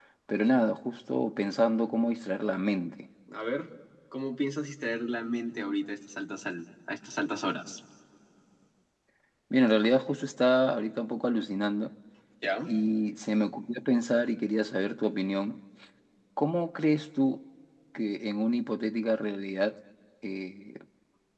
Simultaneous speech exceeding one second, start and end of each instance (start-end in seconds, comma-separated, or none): none